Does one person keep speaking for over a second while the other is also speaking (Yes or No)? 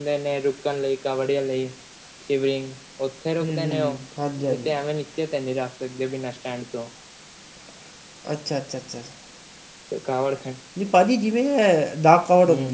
No